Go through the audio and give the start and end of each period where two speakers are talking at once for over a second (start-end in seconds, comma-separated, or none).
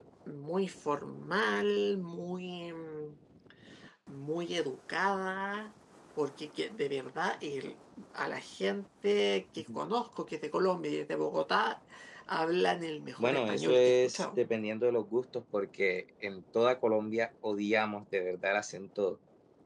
13.2-14.4